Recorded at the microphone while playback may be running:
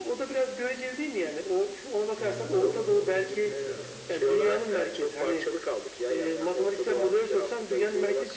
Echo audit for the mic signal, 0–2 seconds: echo only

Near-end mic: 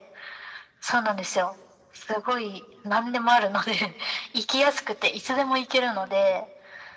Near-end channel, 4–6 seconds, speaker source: echo only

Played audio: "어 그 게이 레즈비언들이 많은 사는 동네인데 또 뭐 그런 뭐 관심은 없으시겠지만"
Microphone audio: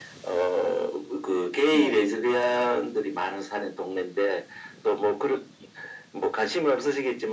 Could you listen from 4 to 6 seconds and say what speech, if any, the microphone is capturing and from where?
echo only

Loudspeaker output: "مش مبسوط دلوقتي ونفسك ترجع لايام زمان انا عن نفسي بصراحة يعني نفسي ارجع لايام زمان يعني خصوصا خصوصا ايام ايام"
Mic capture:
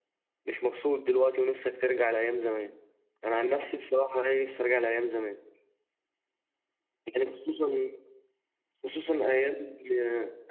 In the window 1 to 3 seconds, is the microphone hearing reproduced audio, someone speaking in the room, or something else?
echo only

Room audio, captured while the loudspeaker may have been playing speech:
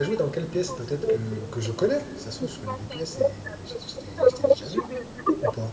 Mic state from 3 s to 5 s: both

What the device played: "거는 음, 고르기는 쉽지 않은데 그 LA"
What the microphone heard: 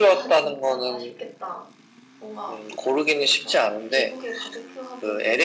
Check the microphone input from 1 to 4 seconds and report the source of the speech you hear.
both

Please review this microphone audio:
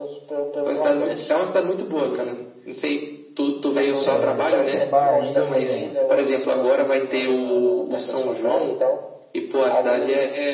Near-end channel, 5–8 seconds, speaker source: both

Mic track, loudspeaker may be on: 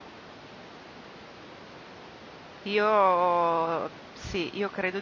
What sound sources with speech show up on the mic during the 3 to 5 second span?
user only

